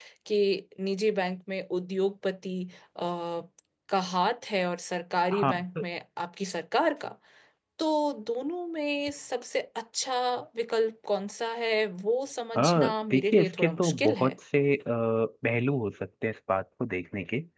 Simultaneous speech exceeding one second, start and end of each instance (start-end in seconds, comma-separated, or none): 12.6-14.3